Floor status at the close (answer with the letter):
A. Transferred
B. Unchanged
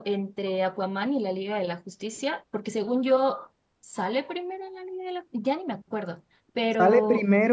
A